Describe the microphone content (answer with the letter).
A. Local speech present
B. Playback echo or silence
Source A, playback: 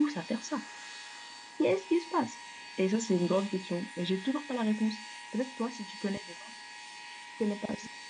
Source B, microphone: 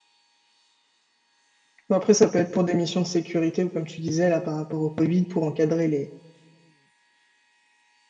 A